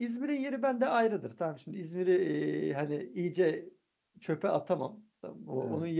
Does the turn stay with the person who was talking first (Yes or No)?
Yes